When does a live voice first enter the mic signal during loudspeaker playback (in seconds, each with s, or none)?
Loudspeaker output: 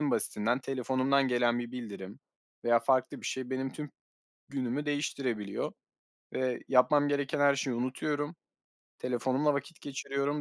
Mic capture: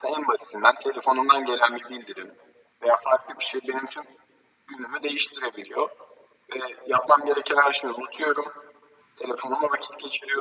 none